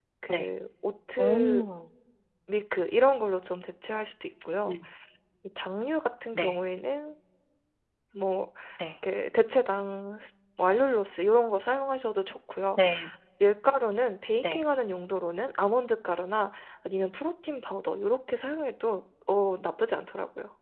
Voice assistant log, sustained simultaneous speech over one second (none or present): none